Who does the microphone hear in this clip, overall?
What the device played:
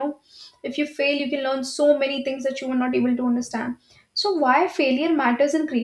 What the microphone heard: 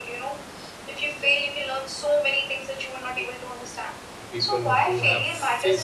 both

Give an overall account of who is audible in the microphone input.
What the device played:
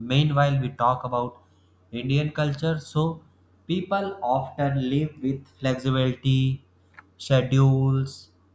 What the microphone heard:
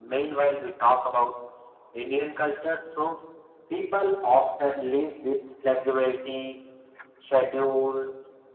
echo only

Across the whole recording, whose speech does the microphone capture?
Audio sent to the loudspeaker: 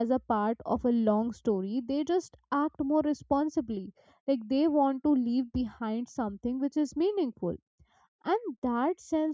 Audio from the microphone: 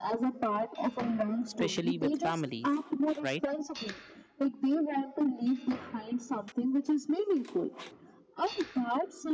both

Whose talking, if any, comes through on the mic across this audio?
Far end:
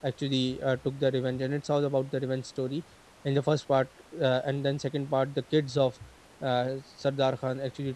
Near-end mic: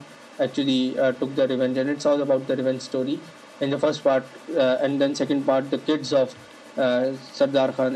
echo only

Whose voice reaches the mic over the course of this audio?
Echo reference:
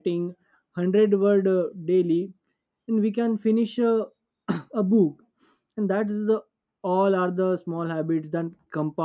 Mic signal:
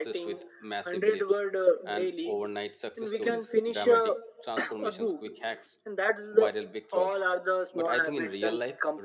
both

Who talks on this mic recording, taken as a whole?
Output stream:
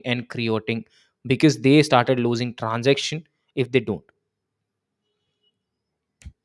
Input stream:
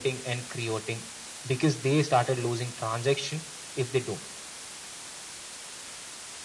echo only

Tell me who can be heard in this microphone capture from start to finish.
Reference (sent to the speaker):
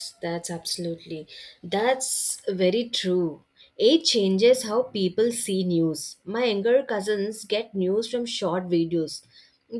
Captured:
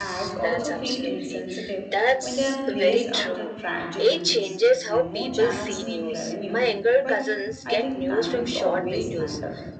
both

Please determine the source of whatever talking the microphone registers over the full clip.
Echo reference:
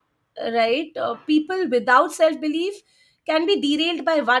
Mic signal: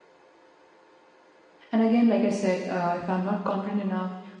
user only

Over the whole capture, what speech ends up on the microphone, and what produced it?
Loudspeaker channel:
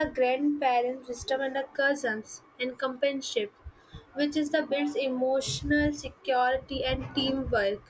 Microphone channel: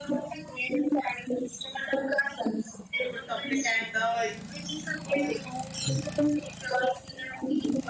both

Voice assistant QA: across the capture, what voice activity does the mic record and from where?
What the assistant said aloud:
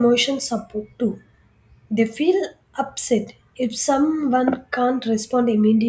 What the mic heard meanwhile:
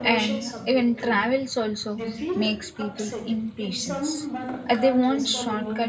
both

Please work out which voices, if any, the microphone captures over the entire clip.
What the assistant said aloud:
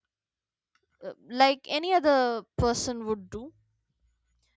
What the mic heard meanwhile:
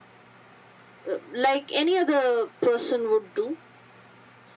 echo only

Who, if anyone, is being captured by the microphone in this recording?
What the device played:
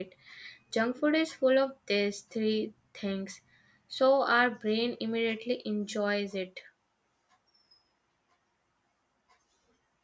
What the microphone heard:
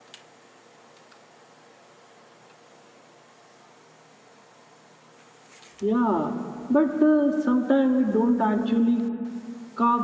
user only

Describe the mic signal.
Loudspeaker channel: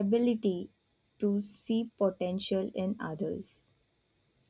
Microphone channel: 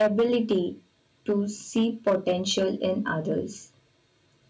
echo only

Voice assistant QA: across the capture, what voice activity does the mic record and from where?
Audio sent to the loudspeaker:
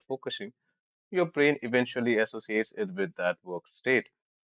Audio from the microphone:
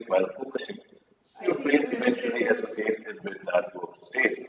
both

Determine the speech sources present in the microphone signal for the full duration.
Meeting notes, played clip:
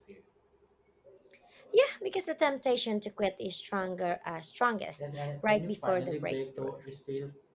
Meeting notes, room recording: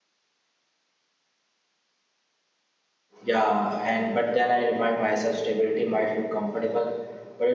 user only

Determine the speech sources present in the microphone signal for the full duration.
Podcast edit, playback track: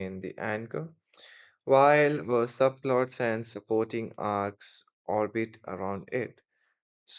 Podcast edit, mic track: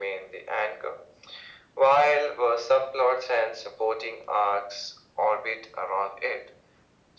echo only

